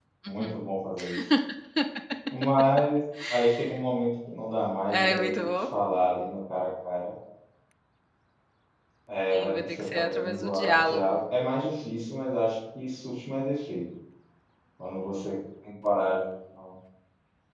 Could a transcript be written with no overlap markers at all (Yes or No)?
No